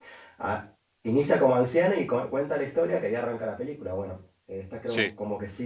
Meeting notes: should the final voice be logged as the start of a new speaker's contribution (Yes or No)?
No